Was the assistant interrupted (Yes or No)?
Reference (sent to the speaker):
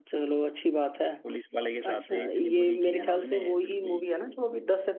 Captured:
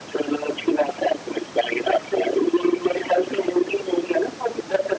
No